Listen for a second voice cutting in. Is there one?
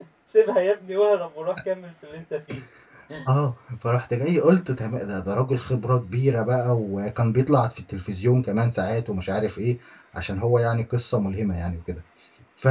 No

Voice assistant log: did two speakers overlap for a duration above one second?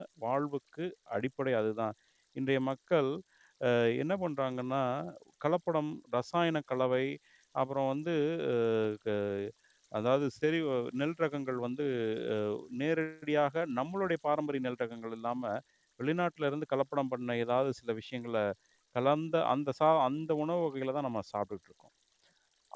No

